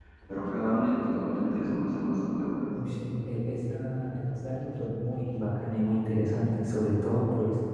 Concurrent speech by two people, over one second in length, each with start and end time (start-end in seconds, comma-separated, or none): none